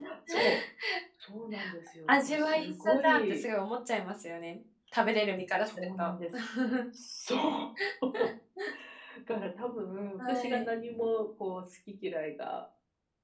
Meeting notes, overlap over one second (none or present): present